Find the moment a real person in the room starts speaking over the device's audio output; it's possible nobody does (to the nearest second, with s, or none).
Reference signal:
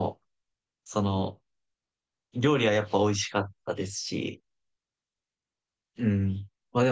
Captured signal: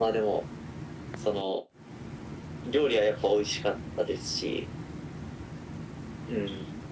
none